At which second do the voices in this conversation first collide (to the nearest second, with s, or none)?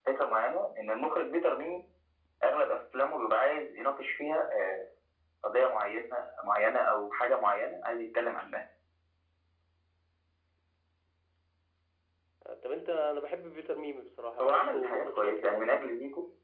14 s